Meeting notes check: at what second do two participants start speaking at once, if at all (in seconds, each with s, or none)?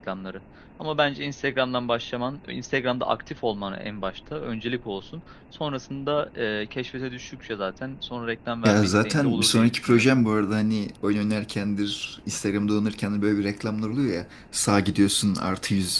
8.6 s